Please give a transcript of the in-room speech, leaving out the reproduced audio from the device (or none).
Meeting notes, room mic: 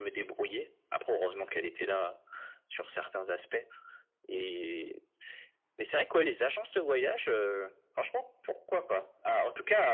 none